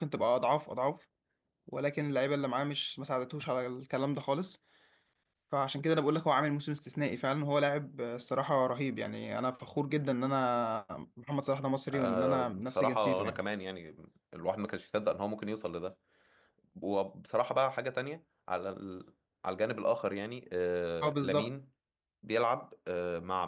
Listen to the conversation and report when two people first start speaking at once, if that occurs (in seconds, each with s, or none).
11.9 s